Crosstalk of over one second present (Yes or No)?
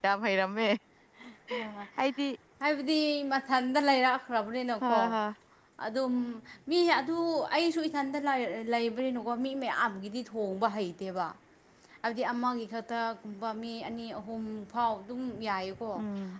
No